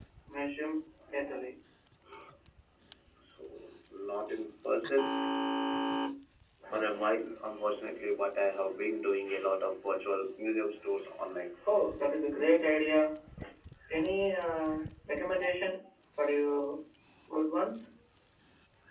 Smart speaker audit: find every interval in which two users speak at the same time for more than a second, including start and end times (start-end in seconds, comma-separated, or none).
none